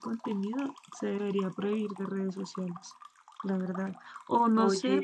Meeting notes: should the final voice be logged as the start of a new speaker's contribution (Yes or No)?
No